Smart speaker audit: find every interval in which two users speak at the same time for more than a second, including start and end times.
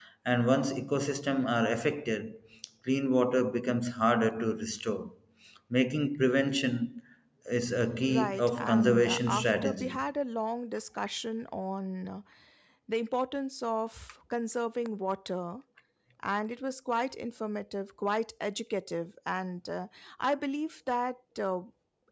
8.1-10.0

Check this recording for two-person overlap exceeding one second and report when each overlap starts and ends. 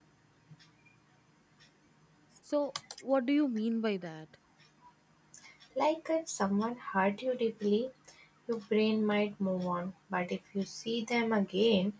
none

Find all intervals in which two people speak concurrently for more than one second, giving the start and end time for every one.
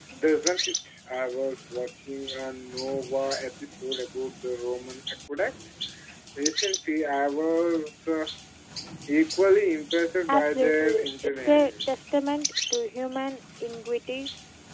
10.3-11.7

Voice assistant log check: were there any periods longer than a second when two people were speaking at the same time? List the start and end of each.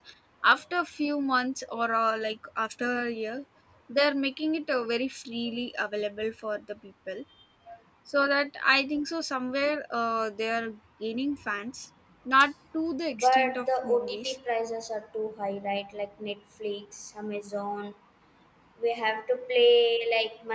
13.2-14.3

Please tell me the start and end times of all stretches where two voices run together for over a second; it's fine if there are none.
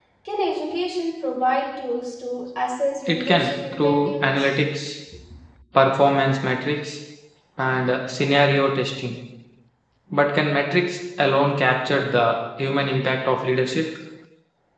3.1-4.5

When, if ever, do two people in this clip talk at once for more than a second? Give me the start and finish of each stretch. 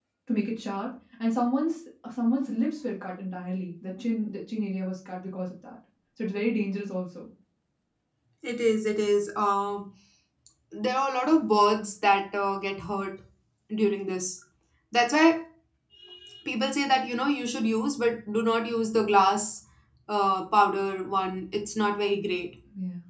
none

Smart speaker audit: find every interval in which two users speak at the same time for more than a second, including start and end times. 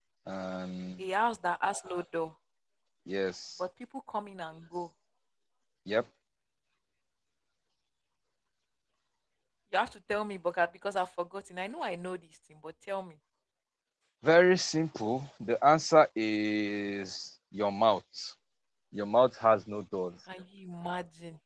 none

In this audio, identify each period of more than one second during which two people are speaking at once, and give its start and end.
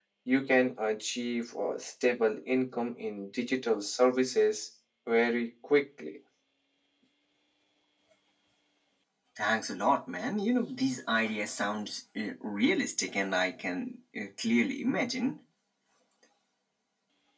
none

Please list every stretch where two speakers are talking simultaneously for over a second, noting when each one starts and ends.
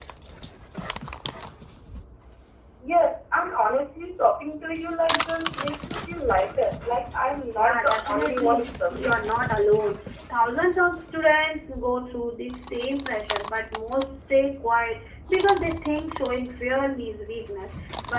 7.6-9.2

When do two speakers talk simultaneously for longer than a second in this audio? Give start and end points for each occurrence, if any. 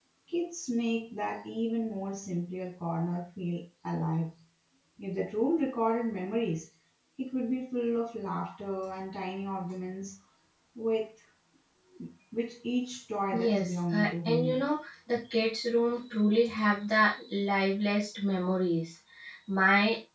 13.3-14.6

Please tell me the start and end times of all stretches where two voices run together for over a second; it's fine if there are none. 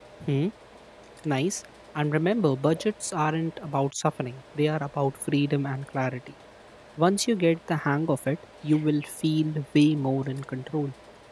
none

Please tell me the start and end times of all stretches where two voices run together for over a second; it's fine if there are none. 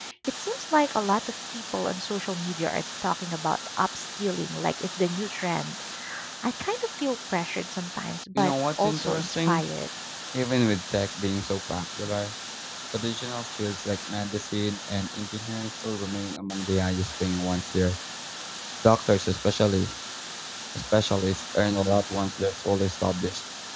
8.3-9.6

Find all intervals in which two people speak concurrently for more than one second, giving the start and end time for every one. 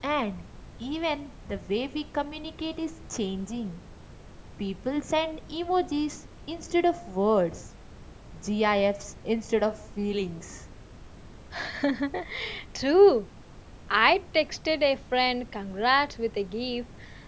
none

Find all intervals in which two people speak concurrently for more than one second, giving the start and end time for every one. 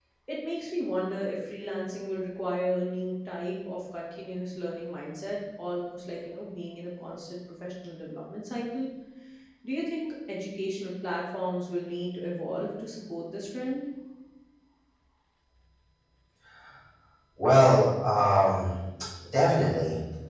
none

